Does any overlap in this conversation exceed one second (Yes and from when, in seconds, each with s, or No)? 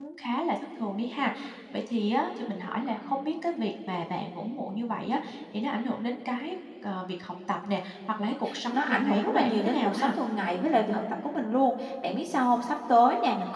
Yes, from 8.4 s